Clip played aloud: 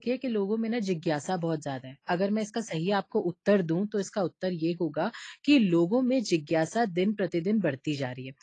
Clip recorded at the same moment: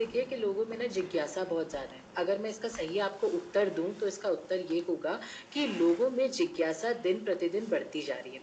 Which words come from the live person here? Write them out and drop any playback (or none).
none